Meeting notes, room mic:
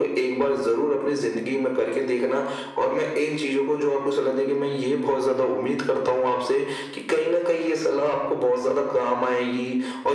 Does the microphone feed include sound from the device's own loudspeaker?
Yes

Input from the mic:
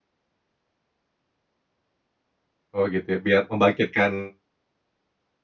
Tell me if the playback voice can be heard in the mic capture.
No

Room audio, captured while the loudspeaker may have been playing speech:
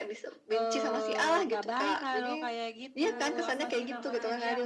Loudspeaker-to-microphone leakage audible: Yes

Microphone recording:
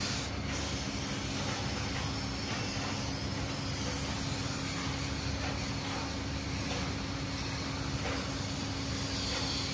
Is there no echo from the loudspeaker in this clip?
Yes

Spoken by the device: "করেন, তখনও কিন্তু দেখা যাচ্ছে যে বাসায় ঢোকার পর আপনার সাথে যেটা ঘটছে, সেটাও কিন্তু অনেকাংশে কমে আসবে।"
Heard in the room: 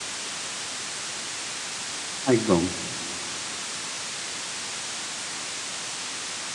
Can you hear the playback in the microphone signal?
No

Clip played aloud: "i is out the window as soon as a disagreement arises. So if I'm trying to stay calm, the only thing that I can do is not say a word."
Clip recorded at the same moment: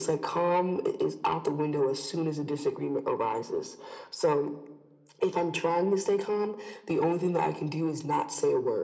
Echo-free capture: No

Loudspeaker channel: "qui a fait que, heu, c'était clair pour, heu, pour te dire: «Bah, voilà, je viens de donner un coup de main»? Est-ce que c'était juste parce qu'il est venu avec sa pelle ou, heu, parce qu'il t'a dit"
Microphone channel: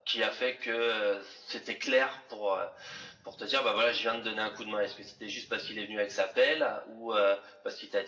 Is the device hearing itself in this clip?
Yes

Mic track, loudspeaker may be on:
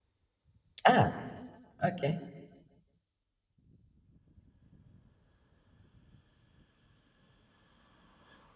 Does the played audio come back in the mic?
No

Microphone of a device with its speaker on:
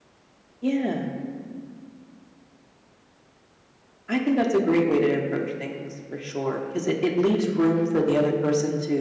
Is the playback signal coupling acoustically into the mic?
Yes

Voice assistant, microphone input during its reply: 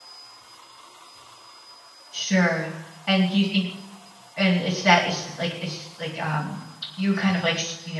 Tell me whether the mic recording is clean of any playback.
Yes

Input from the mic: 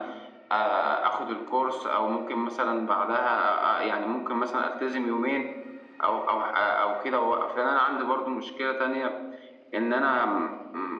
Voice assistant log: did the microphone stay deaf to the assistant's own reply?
No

